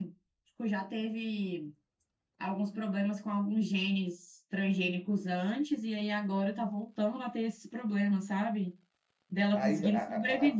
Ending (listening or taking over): taking over